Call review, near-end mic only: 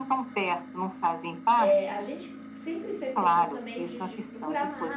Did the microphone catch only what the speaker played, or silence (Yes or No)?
No